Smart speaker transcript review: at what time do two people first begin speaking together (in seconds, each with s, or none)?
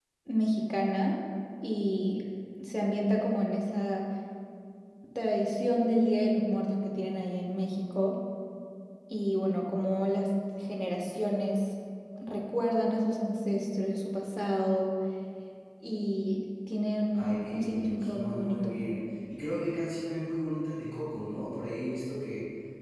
17.1 s